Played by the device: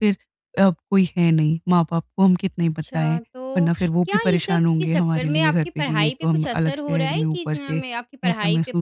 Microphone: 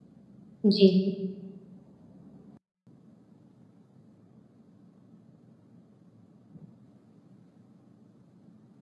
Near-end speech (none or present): present